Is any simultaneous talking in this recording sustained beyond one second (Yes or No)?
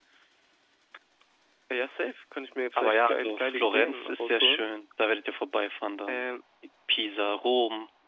Yes